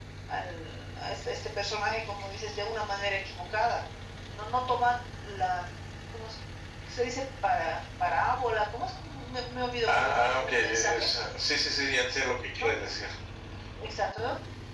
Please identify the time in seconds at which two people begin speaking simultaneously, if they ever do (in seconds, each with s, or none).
9.9 s